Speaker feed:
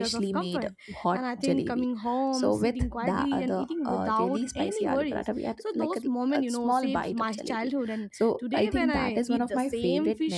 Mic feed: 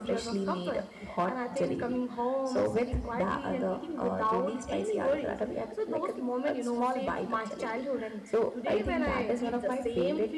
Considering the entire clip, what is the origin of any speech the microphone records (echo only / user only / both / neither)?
echo only